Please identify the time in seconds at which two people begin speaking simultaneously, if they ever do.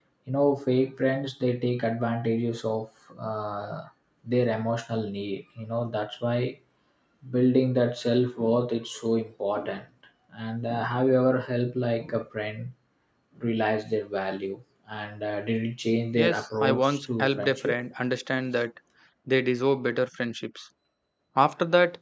16 s

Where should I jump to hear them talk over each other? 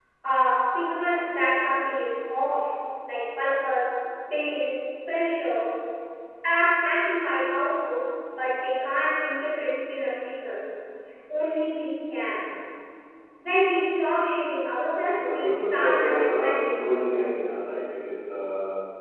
15 s

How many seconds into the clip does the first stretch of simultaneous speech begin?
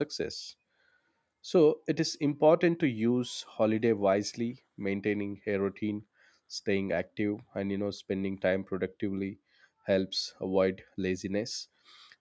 none

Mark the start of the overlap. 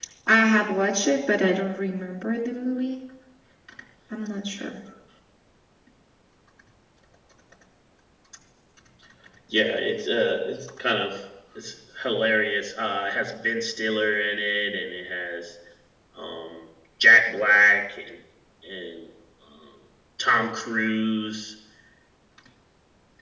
none

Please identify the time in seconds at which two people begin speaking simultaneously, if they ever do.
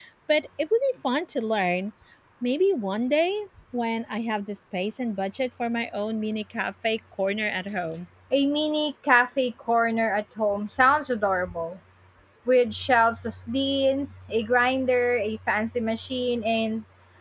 none

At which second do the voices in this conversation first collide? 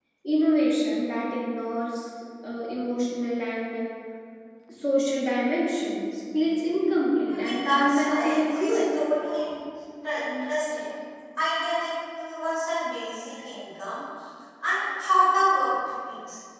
7 s

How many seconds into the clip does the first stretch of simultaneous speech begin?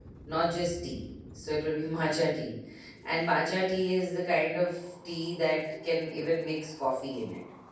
none

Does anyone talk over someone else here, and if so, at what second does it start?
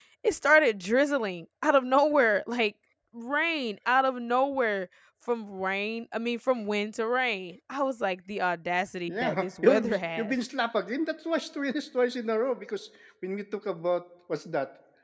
9 s

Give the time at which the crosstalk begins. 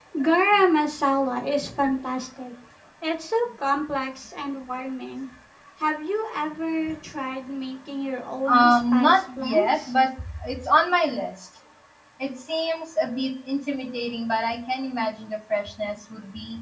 8 s

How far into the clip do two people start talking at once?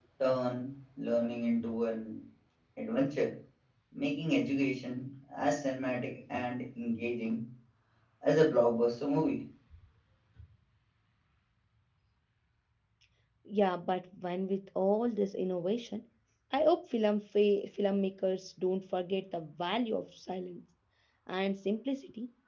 none

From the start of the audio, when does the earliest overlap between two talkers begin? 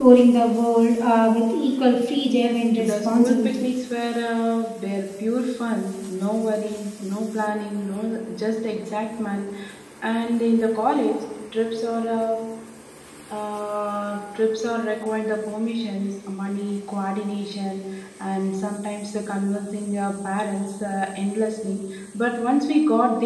2 s

